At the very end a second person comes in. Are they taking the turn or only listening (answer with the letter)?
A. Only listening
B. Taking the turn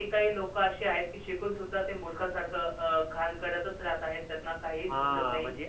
B